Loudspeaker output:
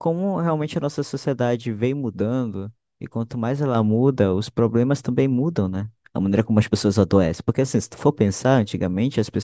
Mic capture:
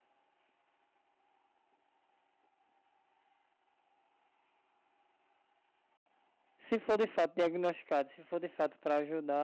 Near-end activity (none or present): present